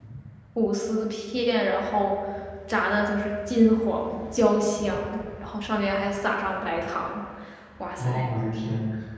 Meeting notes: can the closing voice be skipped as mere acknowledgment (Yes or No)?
No